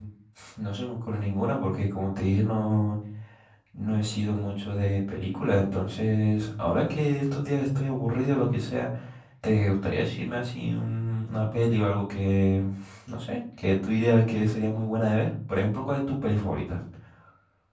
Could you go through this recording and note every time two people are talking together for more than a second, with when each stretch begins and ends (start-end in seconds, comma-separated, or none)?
none